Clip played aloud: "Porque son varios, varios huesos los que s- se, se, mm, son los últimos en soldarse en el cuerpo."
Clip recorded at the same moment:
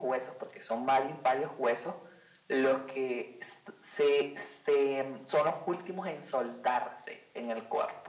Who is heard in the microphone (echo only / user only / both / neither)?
echo only